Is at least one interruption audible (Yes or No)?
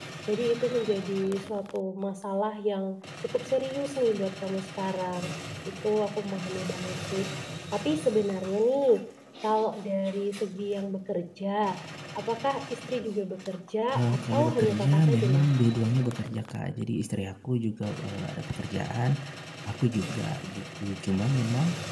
Yes